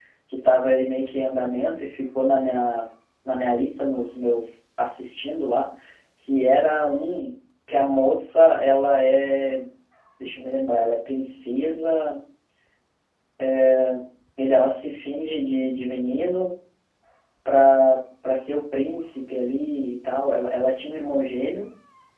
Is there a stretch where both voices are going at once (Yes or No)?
No